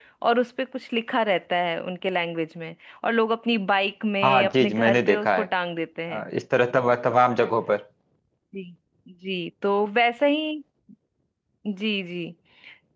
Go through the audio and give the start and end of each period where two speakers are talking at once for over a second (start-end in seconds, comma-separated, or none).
4.2-5.5